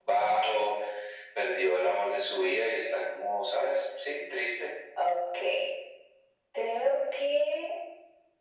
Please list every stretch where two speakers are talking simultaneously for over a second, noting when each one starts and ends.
none

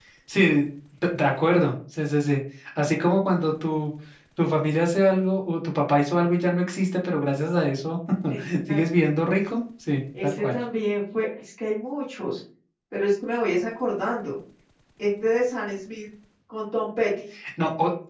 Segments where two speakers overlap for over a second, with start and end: none

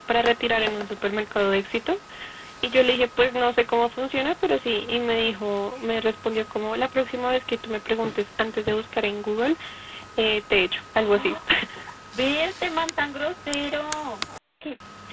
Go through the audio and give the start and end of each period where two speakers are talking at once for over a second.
none

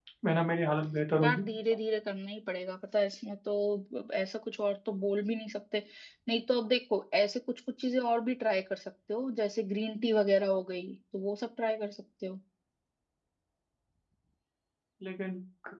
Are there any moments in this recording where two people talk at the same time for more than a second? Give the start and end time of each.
none

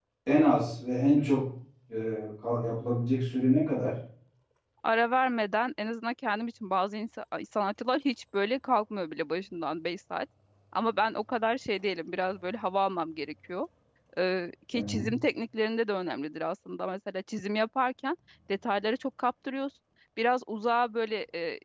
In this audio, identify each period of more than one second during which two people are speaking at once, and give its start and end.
none

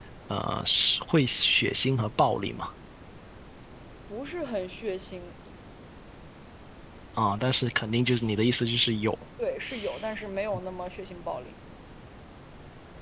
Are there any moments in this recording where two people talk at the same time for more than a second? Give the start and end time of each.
none

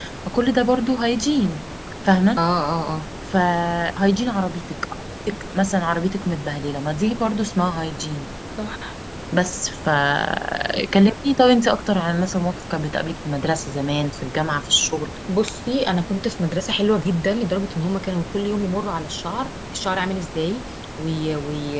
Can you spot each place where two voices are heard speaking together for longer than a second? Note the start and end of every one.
none

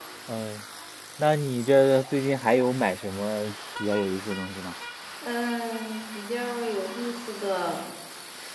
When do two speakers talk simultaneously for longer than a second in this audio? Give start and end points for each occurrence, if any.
none

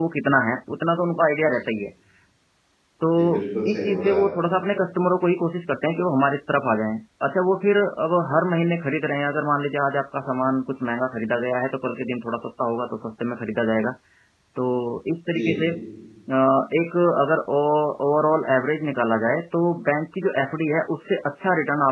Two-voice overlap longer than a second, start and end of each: 3.2-4.4

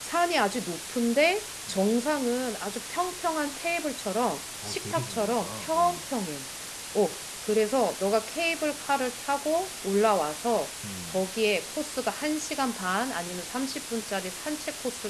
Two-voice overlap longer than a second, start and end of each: 4.6-6.0

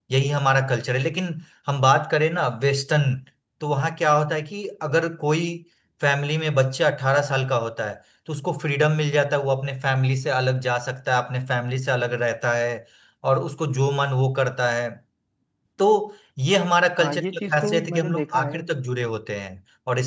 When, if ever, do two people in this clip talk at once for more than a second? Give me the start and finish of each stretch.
17.0-18.7

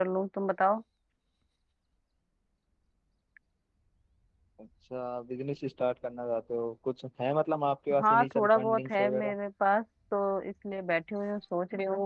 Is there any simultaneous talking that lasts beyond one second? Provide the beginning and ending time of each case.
8.0-9.3

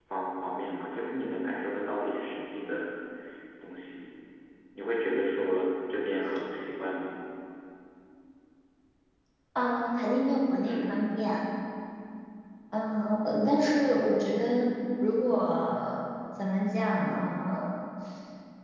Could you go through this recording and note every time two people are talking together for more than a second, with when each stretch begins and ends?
none

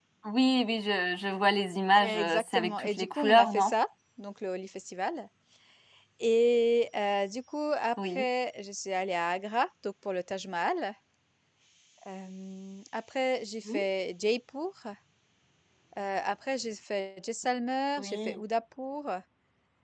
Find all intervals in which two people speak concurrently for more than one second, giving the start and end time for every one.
2.0-3.7

